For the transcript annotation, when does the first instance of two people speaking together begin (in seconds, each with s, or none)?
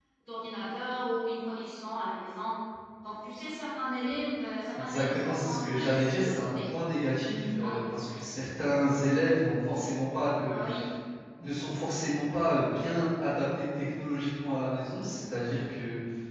4.7 s